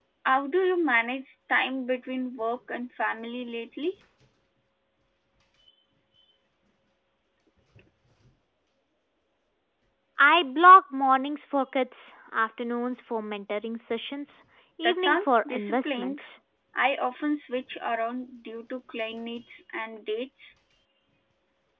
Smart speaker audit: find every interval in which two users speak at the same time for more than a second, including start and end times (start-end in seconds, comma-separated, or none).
14.8-16.2